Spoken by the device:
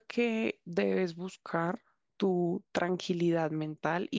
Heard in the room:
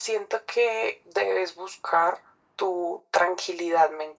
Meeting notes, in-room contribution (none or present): none